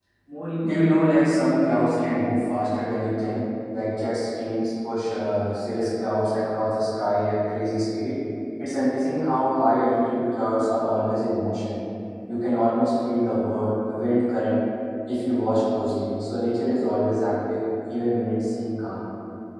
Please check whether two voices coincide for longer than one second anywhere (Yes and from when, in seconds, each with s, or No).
Yes, from 0.6 s